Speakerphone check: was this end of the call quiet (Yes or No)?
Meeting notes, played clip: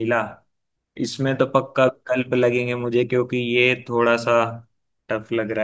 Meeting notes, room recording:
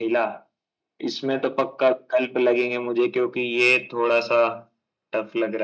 Yes